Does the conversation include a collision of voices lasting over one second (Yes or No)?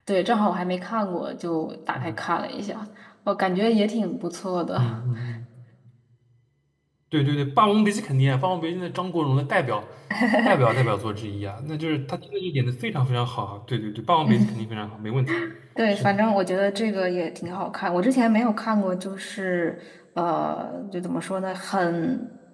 No